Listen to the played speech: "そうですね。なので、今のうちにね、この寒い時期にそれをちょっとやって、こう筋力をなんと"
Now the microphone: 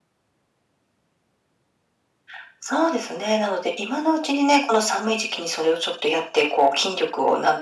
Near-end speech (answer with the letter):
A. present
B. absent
B